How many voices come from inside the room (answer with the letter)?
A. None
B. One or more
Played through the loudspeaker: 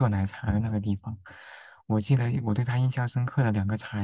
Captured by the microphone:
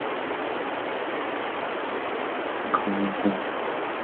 B